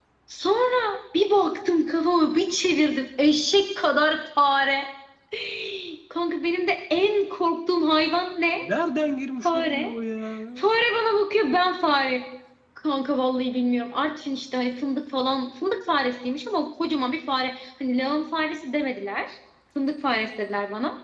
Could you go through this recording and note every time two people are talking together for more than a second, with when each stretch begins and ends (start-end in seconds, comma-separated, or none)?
none